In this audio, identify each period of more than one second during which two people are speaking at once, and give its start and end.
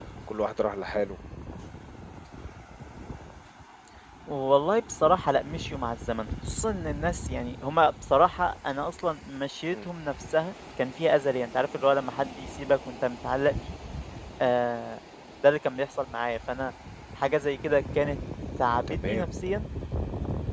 none

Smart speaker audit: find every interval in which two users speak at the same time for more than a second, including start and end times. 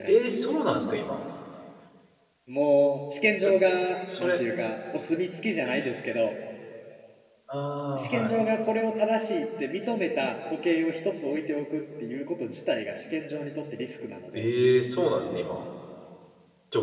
none

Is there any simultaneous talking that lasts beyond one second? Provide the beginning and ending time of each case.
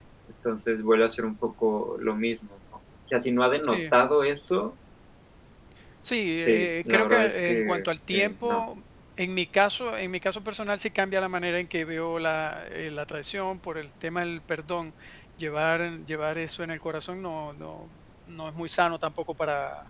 6.4-8.6

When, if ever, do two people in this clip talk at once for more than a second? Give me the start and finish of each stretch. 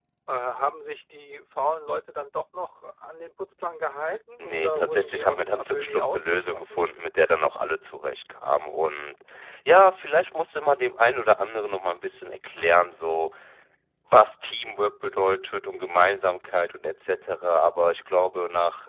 4.4-6.8

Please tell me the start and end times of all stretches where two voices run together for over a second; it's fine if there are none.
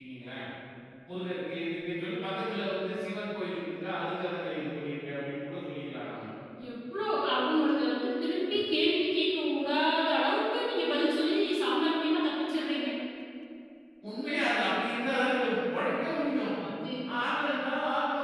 none

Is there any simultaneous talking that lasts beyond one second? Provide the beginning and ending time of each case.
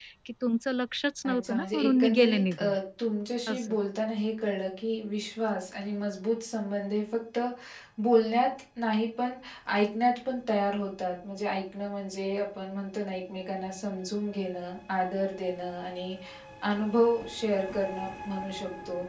1.2-2.6

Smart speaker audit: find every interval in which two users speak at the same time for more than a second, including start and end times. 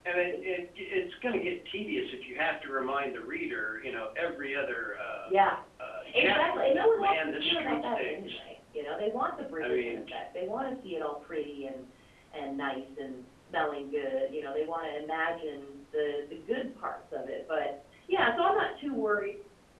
6.1-8.4

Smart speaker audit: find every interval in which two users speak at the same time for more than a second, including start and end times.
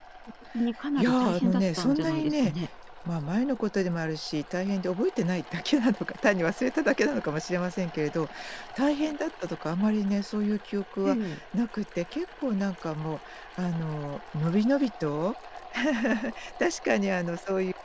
1.0-2.5

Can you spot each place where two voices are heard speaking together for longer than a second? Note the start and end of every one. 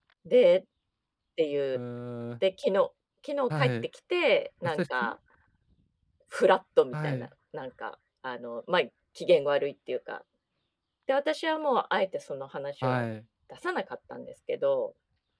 none

